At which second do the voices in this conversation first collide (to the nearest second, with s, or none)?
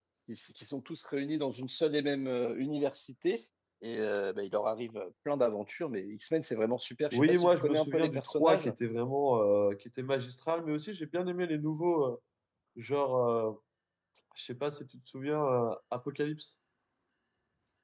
7 s